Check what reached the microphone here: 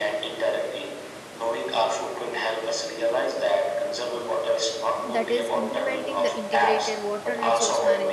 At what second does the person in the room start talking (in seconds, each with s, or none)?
5.0 s